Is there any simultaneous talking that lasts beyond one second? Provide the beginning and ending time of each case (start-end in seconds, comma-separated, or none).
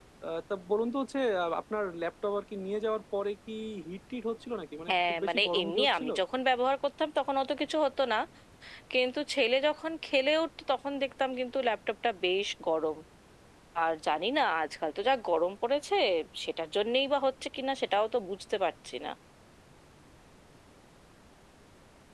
4.9-6.1